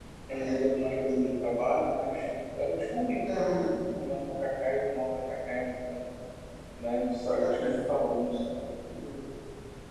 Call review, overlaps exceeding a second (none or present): none